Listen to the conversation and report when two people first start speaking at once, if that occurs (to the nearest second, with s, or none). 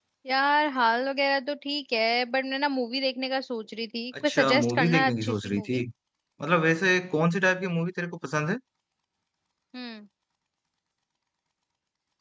4 s